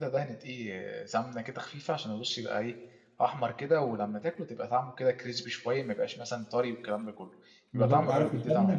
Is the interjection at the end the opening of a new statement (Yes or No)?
Yes